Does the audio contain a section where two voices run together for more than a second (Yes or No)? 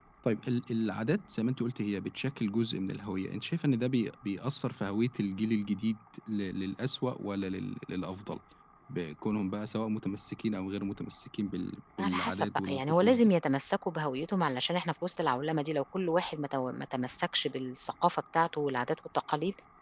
Yes